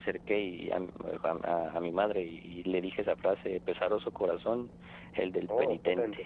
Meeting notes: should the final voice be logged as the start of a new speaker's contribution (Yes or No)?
No